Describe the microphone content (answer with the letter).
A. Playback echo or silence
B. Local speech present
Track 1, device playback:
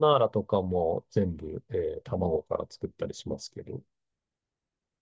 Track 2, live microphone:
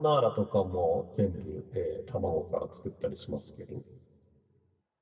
A